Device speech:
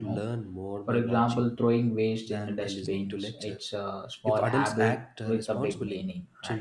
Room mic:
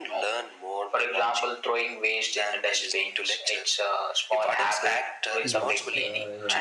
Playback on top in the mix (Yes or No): Yes